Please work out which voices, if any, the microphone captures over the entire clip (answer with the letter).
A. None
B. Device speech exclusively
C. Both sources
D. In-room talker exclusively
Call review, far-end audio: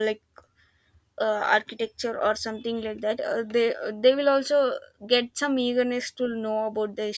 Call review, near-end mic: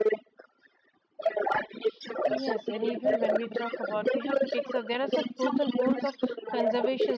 C